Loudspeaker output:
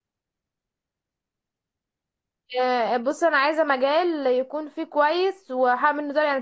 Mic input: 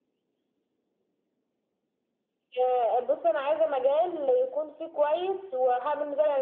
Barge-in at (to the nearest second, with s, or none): none